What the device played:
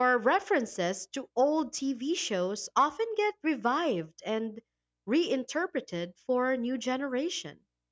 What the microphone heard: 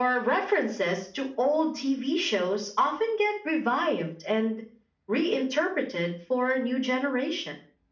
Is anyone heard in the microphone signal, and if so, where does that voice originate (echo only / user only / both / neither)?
echo only